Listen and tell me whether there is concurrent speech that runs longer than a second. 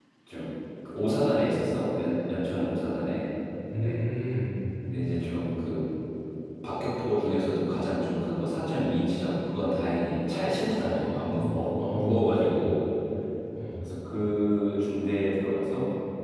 Yes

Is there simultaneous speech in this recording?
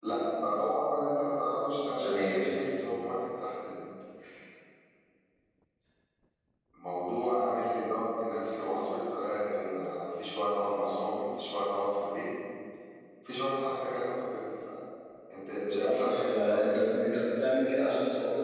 Yes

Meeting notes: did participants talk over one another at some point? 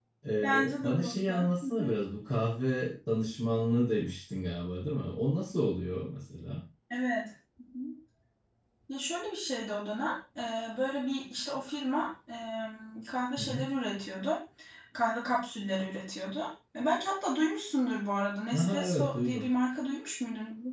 Yes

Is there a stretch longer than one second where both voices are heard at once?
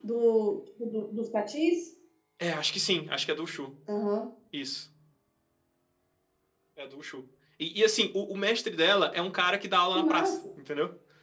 No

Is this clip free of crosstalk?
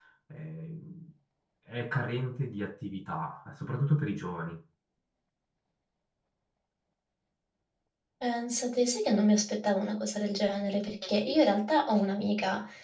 Yes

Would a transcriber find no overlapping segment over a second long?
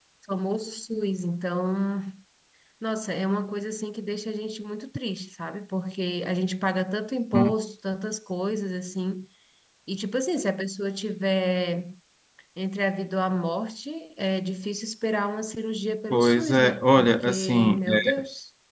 No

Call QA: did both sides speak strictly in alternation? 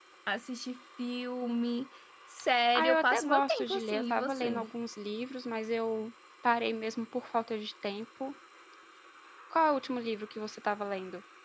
No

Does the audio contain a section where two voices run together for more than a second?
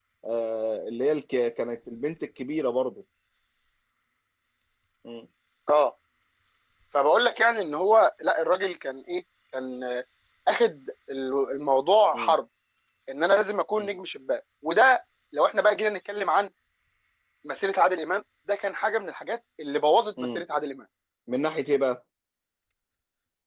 No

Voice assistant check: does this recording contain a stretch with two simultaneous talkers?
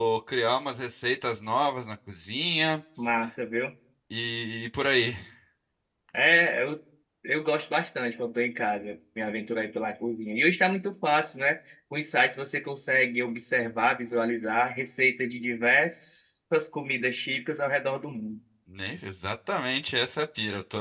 No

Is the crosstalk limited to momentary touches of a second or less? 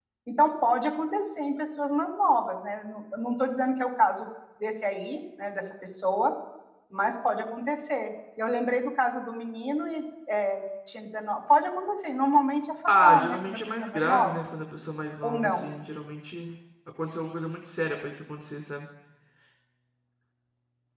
No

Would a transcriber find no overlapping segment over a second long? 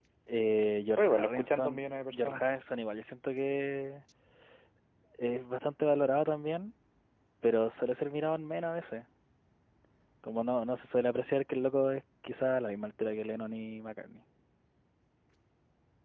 No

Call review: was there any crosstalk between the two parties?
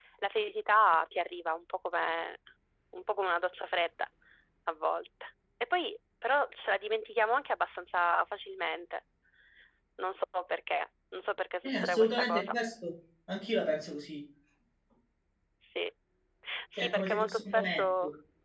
Yes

